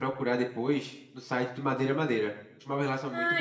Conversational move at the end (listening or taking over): taking over